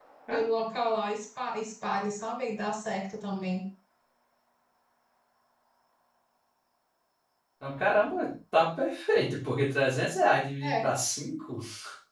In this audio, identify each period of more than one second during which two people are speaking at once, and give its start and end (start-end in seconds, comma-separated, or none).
none